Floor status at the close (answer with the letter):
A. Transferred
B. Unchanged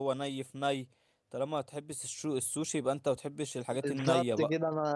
A